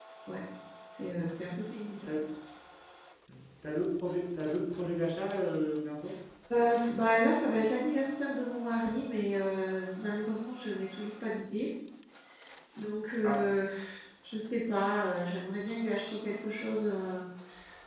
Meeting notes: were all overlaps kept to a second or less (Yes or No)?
Yes